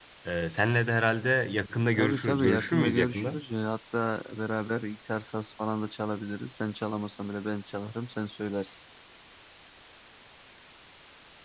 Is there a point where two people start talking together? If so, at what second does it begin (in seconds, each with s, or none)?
1.9 s